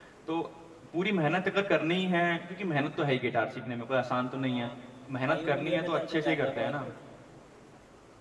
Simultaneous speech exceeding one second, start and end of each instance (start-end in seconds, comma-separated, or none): 5.2-6.7